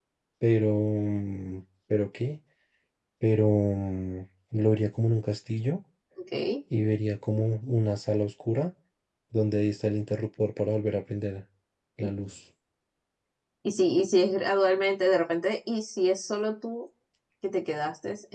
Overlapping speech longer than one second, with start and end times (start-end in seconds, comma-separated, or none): none